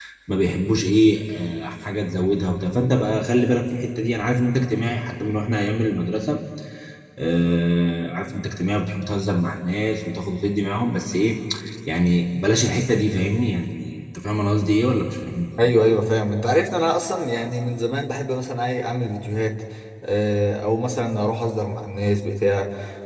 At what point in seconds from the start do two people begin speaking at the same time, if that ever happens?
none

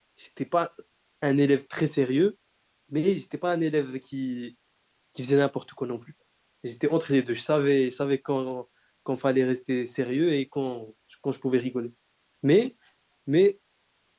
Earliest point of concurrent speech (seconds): none

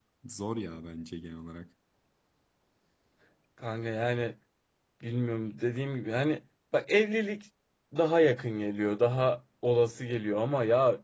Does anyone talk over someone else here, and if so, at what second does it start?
none

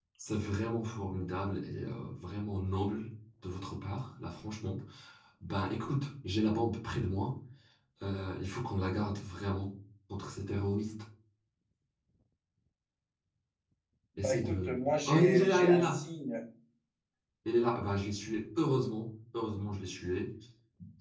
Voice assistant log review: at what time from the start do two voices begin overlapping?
14.2 s

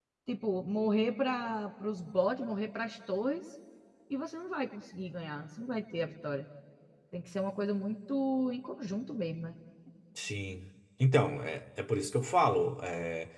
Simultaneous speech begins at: none

